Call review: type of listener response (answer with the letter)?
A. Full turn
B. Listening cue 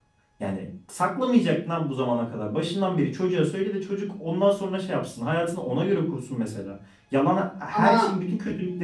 B